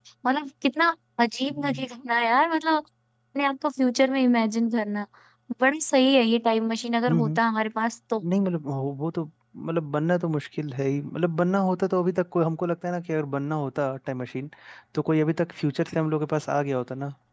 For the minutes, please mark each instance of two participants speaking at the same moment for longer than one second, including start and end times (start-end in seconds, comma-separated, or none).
none